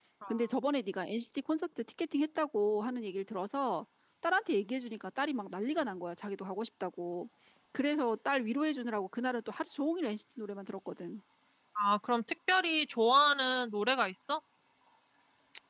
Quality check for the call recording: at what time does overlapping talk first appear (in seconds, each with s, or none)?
none